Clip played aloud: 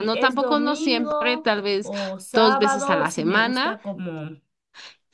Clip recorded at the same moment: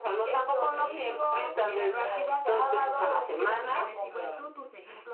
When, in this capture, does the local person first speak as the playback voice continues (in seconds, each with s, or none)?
0.7 s